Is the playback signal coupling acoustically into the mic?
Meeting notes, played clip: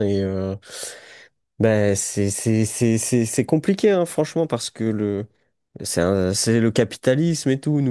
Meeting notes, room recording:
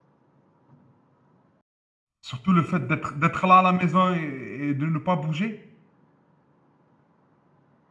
No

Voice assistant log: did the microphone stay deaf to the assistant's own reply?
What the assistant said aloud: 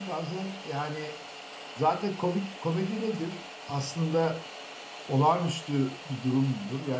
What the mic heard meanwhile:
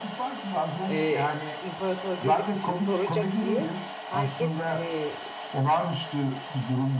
No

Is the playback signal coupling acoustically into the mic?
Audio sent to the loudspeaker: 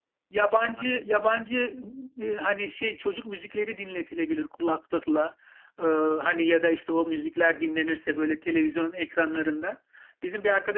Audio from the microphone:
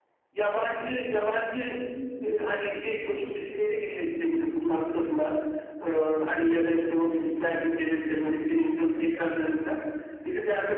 Yes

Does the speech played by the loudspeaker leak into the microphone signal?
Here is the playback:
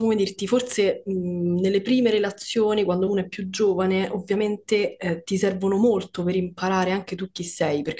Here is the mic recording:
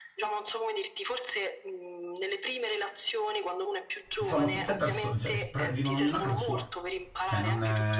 Yes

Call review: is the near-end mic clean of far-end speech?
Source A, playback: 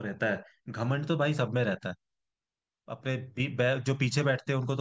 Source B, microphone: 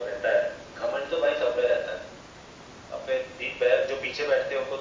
No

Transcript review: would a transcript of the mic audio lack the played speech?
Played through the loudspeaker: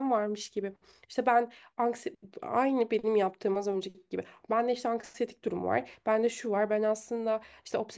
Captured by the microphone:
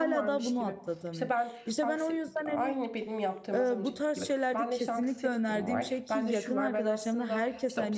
No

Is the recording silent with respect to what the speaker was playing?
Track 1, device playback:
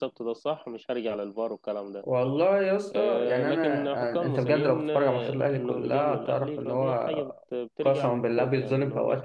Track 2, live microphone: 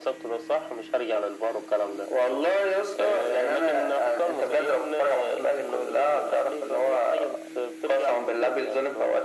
No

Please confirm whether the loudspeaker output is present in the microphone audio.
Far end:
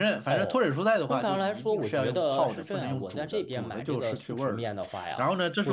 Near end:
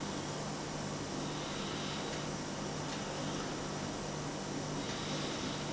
No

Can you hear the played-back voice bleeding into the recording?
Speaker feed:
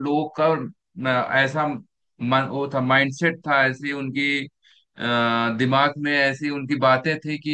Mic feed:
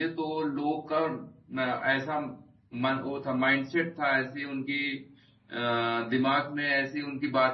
Yes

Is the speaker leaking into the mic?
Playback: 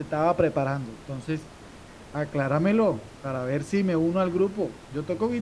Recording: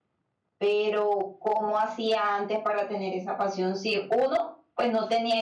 No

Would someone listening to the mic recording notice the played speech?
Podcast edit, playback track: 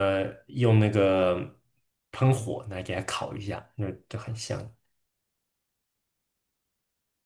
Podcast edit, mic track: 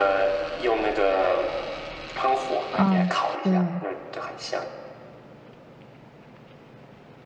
Yes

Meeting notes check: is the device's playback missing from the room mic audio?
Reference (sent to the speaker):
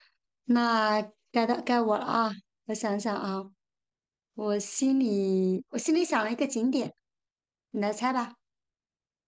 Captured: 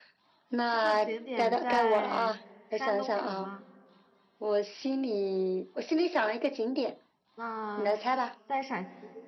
No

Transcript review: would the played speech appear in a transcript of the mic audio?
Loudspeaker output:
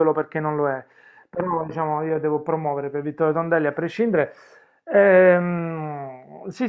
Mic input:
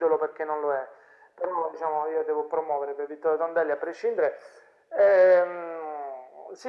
Yes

